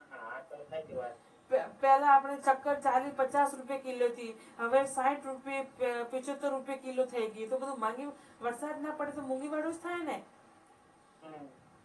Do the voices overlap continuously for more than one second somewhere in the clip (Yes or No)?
No